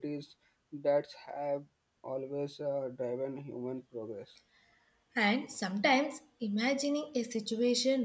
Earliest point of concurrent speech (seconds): none

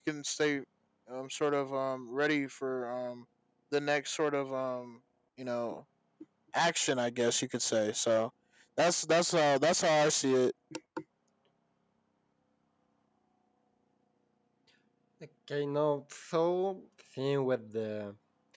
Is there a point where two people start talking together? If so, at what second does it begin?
none

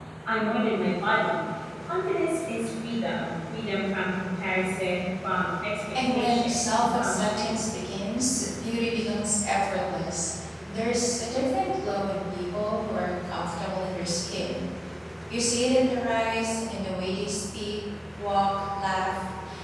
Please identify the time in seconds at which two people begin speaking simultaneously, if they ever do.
6.0 s

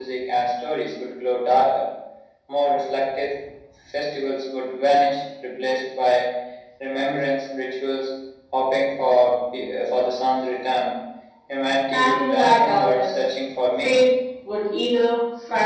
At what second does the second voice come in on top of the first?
11.9 s

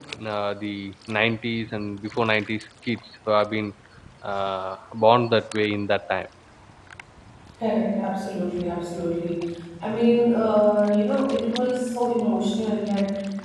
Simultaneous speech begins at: none

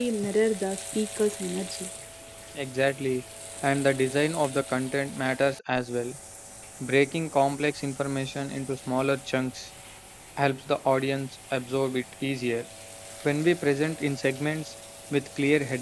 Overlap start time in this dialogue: none

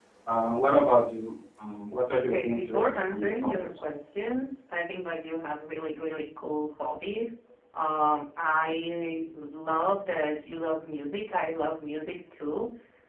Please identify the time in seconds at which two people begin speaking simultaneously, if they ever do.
2.3 s

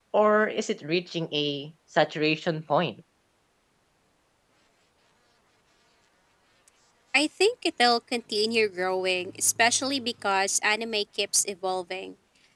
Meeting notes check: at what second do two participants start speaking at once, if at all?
none

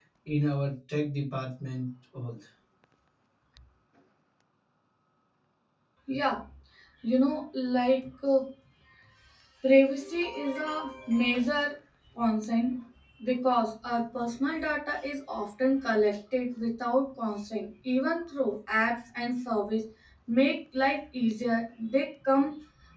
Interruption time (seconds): none

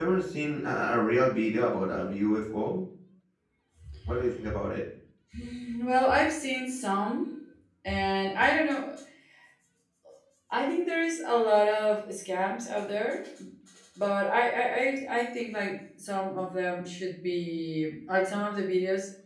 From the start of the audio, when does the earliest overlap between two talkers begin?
none

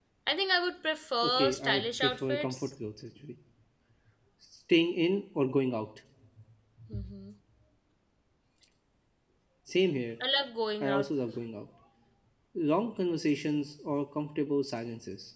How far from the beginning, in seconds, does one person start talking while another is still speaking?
1.2 s

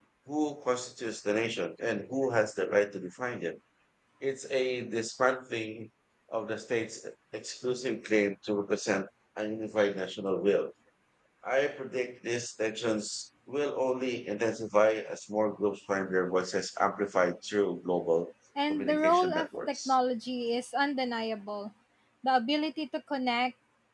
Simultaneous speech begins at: 18.6 s

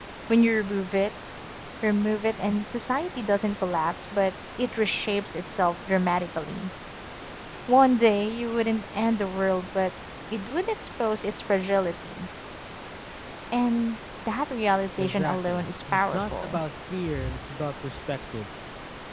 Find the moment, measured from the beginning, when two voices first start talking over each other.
15.0 s

